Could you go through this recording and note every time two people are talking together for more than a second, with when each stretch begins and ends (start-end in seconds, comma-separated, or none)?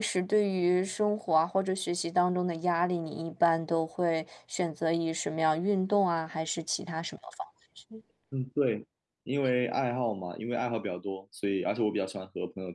none